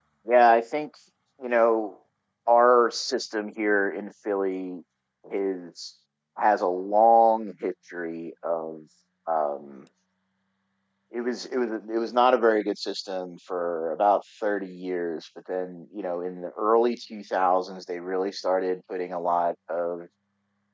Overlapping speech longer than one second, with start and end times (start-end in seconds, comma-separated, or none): none